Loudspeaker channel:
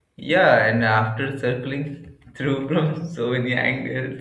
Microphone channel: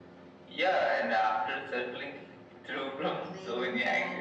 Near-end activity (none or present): present